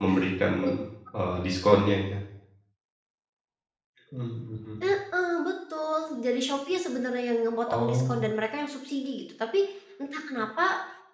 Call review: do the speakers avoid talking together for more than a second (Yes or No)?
Yes